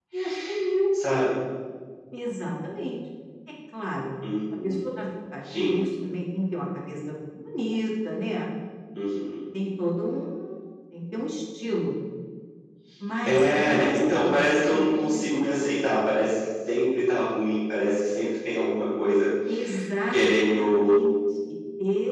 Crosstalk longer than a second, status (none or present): present